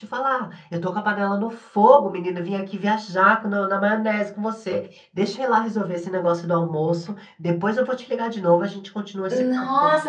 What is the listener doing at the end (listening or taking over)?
taking over